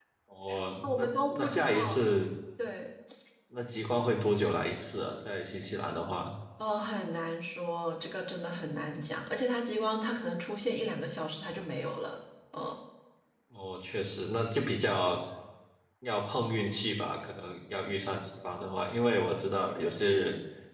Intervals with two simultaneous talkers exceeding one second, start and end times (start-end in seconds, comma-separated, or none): 0.8-2.1